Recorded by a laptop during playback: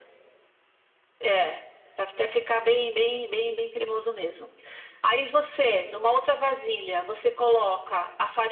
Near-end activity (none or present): none